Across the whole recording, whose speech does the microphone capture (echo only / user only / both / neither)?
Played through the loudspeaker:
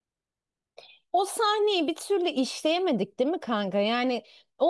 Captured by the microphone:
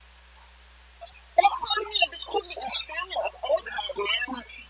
echo only